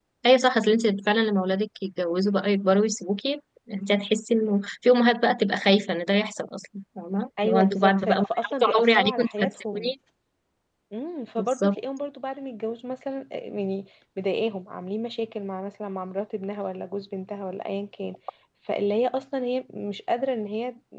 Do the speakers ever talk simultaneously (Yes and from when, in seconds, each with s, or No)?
Yes, from 7.4 s